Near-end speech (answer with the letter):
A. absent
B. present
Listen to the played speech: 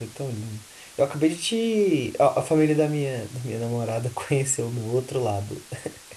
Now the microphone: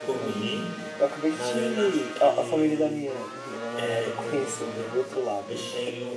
B